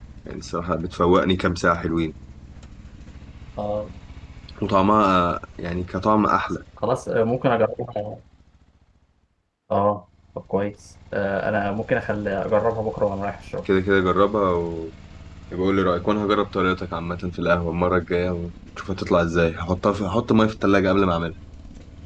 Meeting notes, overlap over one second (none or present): none